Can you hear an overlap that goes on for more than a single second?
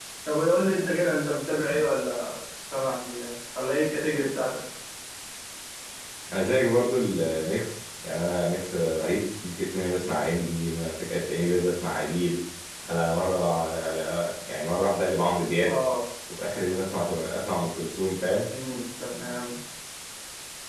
No

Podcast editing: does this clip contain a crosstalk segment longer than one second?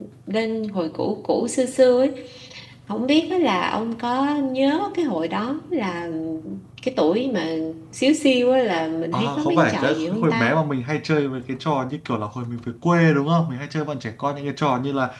Yes, from 9.1 s

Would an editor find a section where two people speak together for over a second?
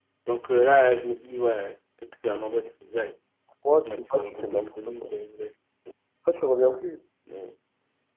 Yes, from 3.8 s

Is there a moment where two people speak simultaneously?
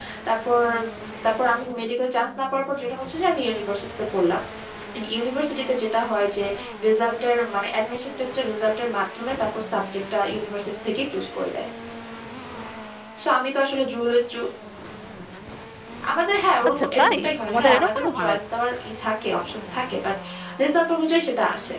Yes, from 16.7 s

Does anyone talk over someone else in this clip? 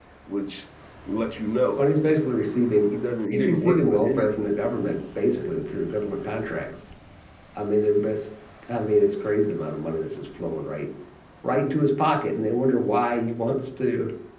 Yes, from 3.3 s

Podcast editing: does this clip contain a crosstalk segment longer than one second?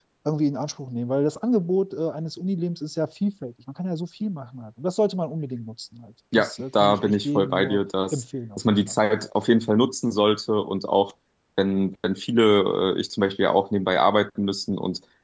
Yes, from 6.3 s

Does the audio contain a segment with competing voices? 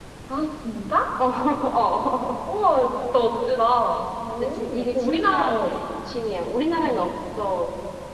Yes, from 4.4 s

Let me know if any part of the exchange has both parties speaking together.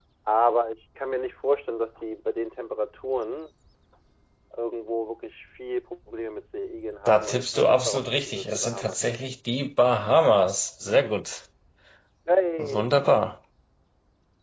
Yes, from 7.1 s

